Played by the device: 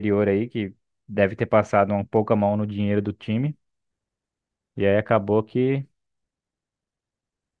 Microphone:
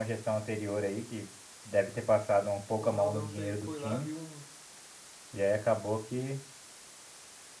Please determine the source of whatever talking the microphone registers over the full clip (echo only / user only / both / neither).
both